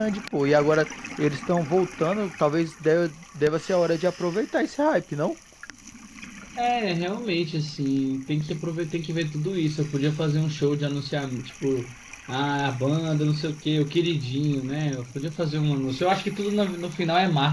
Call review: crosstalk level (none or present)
none